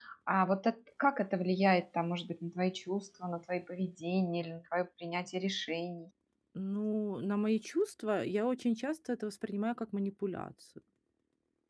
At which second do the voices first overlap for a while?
none

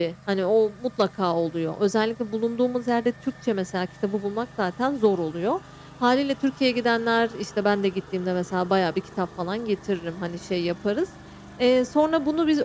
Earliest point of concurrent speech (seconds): none

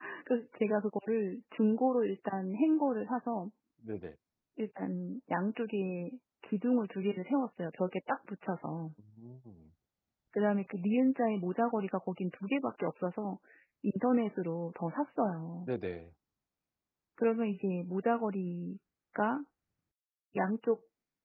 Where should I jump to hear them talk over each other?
none

